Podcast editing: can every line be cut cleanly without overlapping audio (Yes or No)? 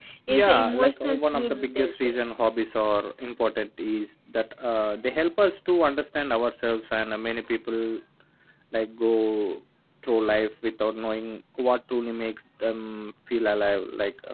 No